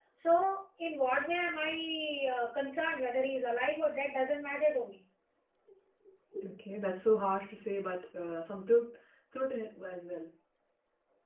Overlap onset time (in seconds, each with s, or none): none